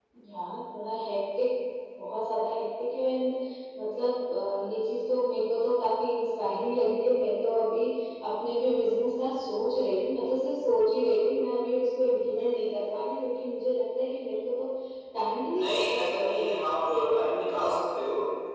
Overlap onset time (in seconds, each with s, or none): none